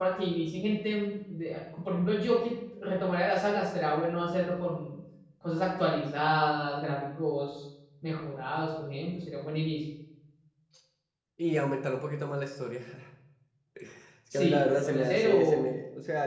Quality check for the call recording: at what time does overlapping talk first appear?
14 s

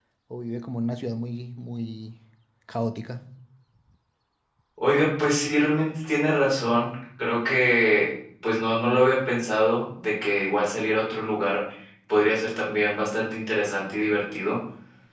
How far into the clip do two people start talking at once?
none

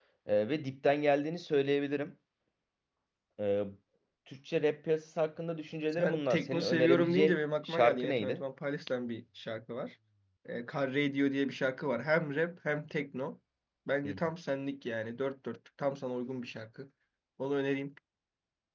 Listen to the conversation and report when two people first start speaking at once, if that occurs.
6 s

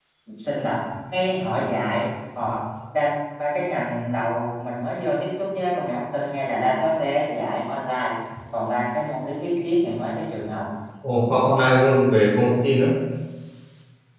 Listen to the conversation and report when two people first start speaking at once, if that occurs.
none

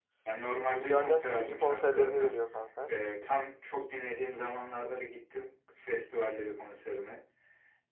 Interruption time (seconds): 1 s

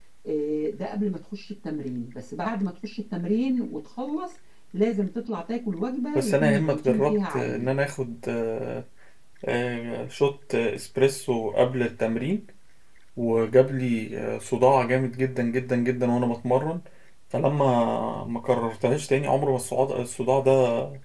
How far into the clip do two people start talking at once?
6 s

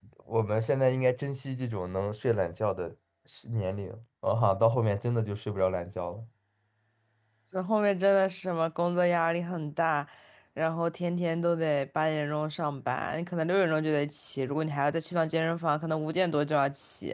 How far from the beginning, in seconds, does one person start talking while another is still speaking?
none

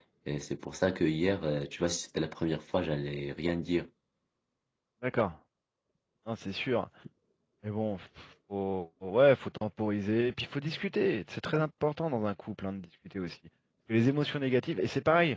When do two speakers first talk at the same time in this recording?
none

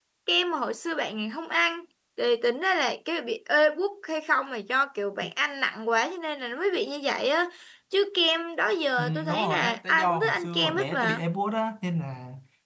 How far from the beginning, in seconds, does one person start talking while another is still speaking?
9 s

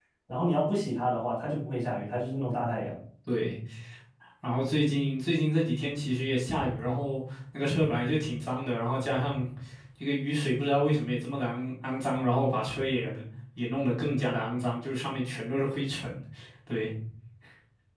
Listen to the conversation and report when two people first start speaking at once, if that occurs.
none

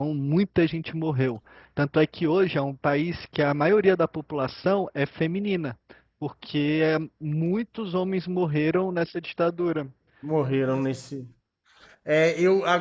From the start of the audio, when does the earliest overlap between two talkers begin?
none

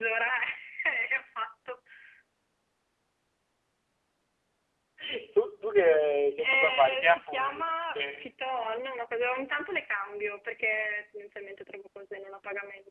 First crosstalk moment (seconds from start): 6 s

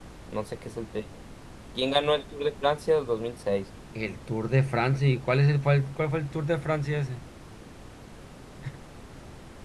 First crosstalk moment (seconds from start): none

